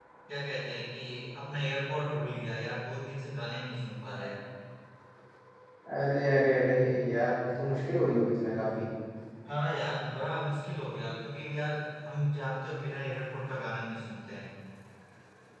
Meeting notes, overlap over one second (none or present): none